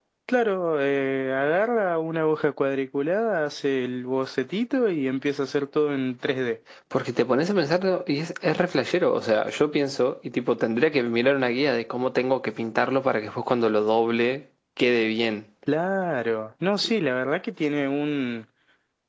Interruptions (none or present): none